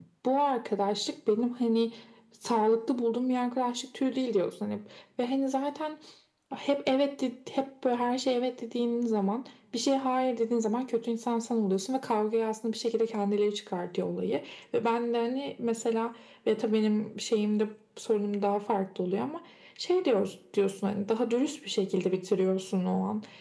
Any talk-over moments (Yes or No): No